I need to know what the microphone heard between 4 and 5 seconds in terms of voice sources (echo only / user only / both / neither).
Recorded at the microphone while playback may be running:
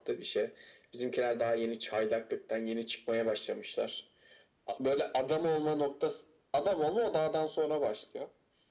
echo only